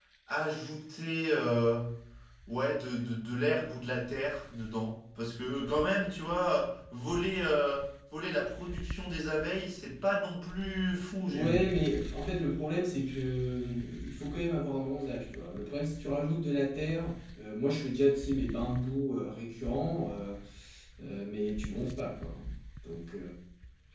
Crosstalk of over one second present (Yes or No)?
No